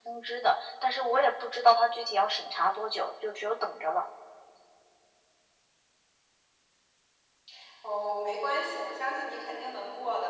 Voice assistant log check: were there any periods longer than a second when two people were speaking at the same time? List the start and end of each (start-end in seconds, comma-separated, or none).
none